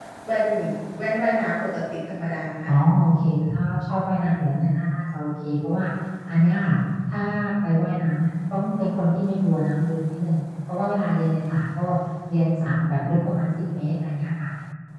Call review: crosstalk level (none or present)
none